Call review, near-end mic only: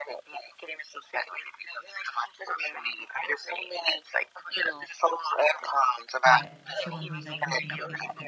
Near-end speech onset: 6 s

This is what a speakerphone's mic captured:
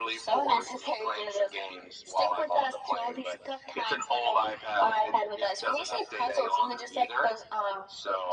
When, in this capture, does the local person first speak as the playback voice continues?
none

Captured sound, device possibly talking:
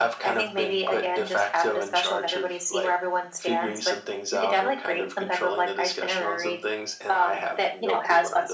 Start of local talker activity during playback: none

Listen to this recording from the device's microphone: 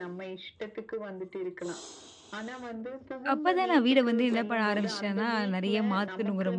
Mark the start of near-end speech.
3 s

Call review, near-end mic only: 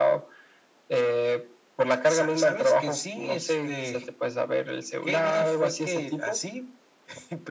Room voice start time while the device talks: none

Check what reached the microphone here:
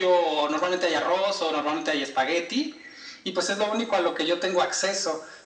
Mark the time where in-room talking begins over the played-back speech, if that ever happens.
none

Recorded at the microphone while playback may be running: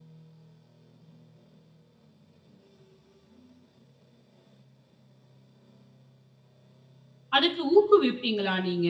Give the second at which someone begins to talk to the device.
7 s

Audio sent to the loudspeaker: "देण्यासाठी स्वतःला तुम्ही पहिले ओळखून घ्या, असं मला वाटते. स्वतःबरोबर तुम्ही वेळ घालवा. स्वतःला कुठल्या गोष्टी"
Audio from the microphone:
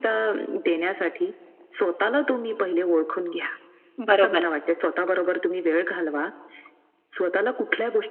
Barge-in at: 4 s

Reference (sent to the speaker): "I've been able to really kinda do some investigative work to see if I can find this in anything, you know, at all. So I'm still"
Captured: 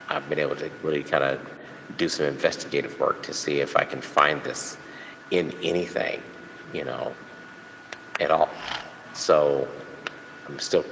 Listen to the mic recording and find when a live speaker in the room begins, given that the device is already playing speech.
none

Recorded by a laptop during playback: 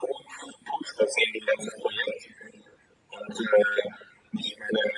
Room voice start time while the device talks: none

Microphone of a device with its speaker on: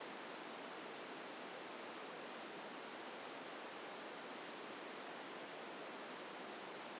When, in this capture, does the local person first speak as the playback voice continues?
none

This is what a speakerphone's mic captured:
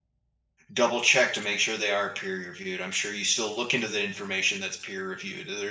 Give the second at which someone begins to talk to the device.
1 s

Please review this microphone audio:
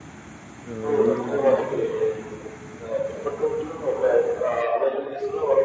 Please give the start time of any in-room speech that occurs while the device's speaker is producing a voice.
1 s

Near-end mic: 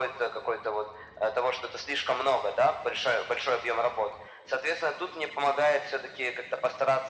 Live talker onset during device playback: none

